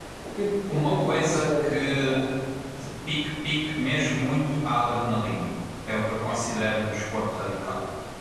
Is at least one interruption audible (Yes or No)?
Yes